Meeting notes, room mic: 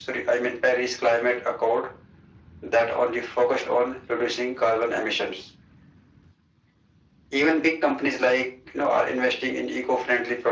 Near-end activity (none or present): none